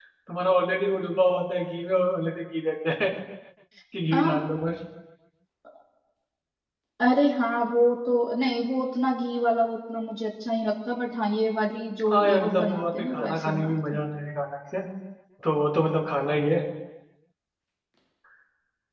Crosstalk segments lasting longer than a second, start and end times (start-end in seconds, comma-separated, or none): 12.1-14.0